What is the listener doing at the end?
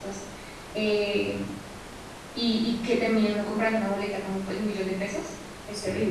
taking over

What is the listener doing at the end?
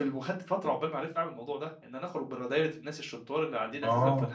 listening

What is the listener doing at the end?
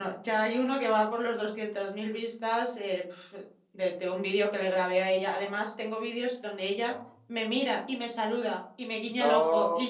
listening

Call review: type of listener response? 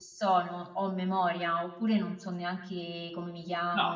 taking over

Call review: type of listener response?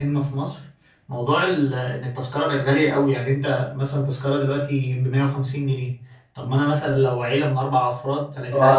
taking over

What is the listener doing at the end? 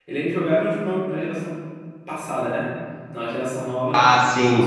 listening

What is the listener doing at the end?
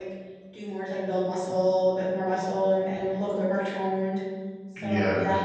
listening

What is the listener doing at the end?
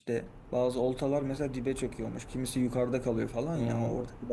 listening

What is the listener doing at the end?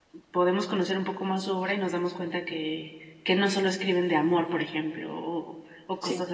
listening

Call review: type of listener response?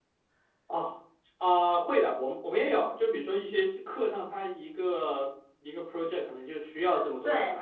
taking over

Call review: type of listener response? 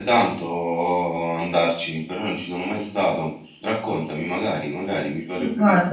taking over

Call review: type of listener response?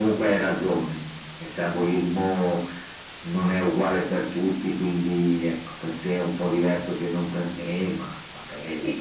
taking over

